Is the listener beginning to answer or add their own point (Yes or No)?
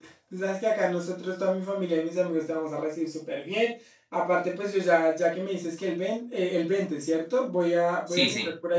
No